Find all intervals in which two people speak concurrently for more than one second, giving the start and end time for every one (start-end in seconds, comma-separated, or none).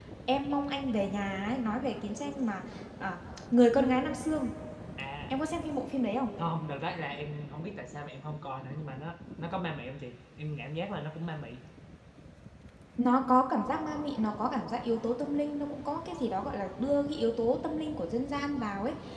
none